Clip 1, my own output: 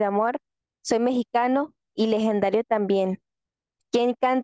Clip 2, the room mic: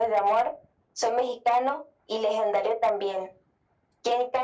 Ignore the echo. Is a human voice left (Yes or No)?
No